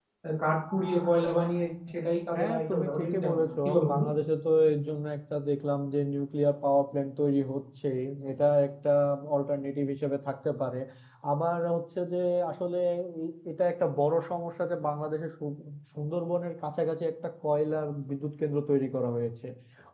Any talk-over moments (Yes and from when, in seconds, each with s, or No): Yes, from 2.3 s